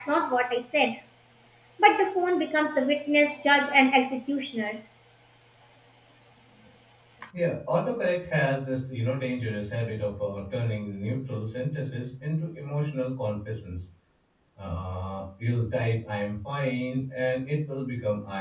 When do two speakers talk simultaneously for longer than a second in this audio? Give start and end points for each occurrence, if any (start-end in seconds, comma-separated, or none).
none